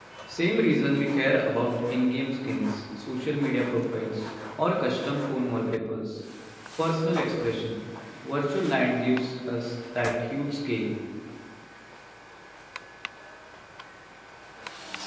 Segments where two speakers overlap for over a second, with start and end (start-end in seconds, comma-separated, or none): none